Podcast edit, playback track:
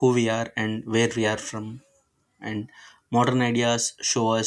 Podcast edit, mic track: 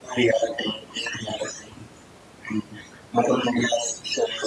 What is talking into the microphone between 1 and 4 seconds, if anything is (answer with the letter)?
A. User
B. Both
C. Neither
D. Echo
D